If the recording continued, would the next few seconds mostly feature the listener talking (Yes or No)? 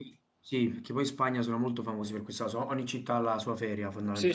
Yes